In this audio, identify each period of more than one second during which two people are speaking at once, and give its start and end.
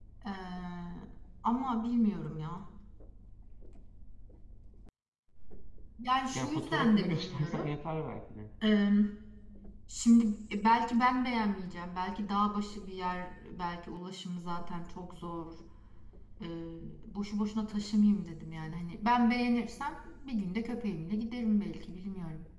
6.3-7.7

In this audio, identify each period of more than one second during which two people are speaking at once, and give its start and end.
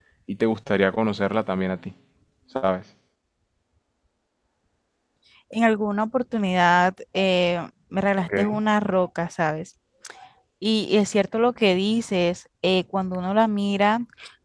none

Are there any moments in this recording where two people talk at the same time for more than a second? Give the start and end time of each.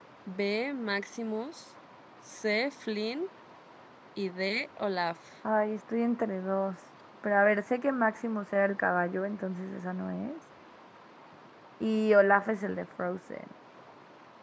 none

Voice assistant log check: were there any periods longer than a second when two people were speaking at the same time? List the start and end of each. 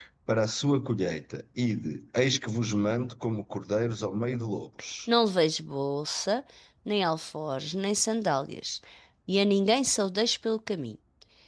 none

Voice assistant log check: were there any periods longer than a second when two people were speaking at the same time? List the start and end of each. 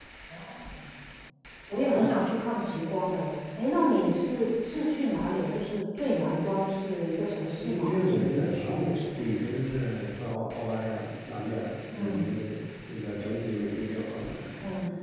7.6-9.3

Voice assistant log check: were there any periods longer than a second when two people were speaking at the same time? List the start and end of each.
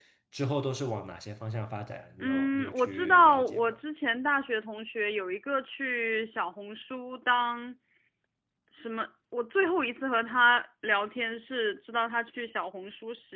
2.2-3.7

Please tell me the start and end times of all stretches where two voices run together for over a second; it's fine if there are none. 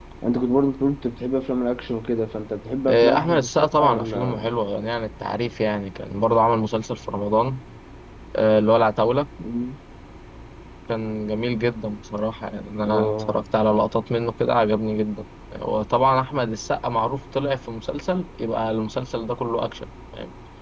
2.9-4.5

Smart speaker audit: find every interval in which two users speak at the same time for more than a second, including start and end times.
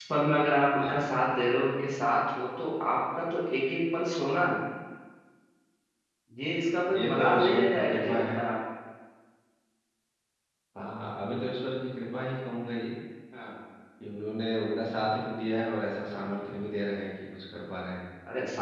6.9-8.4

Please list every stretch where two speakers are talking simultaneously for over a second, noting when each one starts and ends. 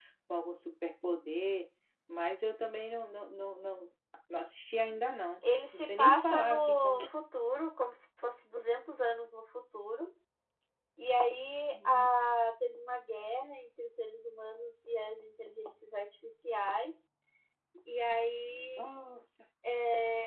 5.7-7.0

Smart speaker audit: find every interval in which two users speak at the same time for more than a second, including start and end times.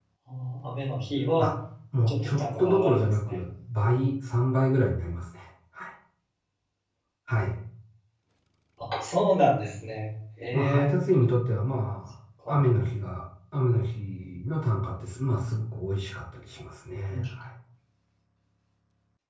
2.1-3.4

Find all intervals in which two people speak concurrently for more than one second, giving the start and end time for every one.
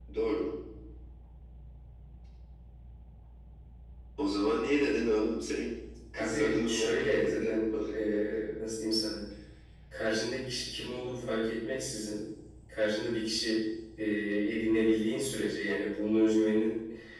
6.2-7.7

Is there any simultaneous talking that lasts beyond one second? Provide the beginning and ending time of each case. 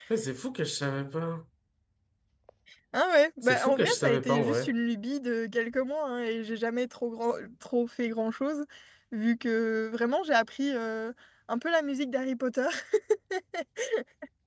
3.4-4.7

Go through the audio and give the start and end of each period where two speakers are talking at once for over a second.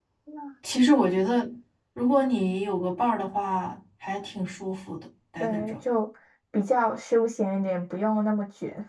none

